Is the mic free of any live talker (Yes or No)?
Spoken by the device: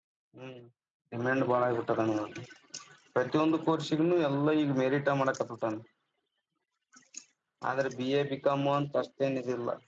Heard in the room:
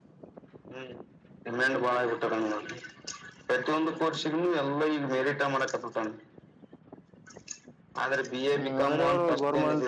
No